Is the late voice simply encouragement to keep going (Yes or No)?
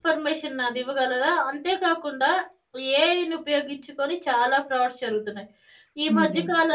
Yes